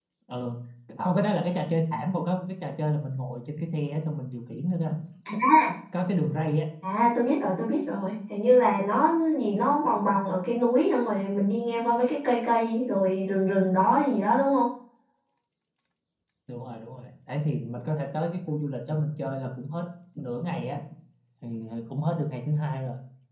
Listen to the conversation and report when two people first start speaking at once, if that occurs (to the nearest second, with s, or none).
none